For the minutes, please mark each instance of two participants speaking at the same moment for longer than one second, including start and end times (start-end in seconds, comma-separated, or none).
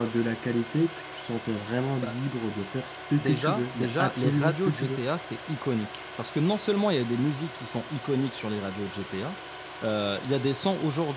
3.2-5.0